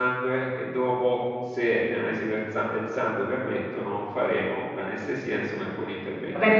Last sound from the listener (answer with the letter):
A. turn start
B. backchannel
A